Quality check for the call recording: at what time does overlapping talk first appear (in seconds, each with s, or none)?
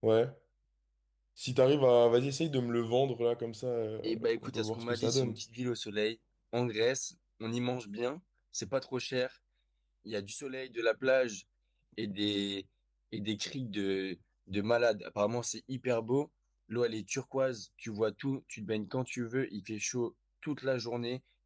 4.0 s